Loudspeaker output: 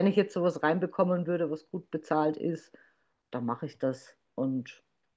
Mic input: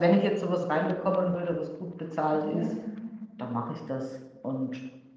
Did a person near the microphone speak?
Yes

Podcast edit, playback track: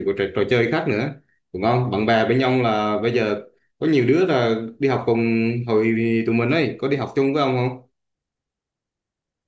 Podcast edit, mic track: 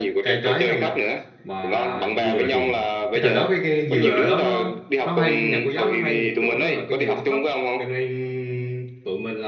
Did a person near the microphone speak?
Yes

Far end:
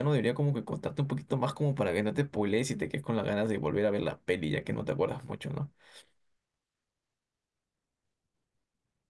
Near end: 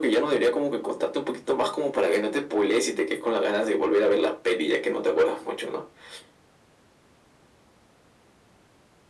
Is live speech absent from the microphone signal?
Yes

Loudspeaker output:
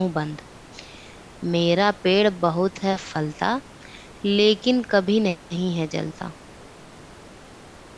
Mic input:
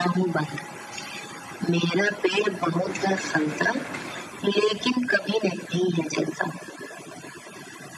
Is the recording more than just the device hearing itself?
No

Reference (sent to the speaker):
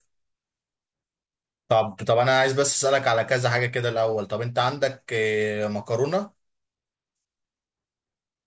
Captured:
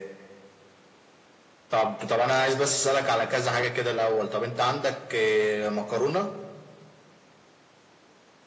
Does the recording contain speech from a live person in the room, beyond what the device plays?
No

